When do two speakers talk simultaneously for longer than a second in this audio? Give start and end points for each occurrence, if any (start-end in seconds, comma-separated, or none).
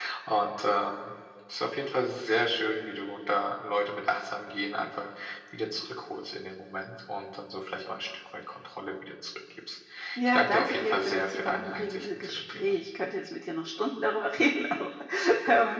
10.2-12.7